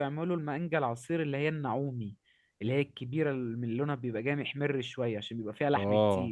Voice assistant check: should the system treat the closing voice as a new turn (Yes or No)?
Yes